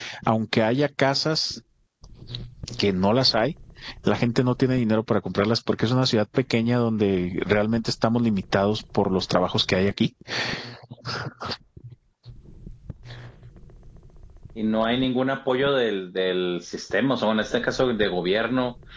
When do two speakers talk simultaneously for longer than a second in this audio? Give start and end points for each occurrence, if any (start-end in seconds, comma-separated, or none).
none